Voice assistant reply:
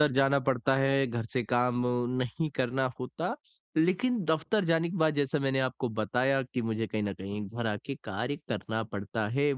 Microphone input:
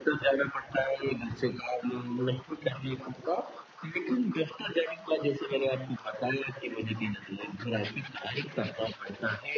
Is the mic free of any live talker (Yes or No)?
Yes